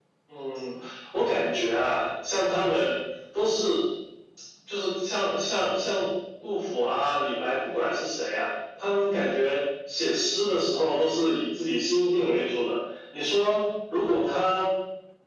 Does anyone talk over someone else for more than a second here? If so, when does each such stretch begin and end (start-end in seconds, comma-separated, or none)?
none